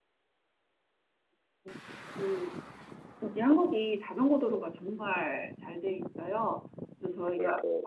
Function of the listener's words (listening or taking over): listening